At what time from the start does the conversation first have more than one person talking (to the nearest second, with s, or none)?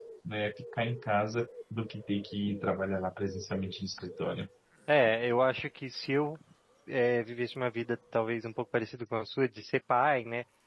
none